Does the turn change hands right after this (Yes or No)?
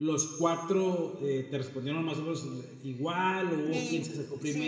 Yes